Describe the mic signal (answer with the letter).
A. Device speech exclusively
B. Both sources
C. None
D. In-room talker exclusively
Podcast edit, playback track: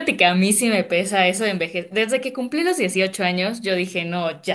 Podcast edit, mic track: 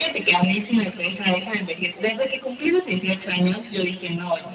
A